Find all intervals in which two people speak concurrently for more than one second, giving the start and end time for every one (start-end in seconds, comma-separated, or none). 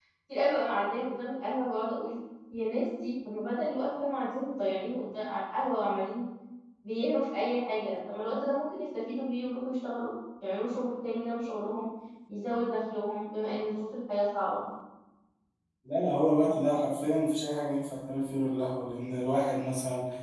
none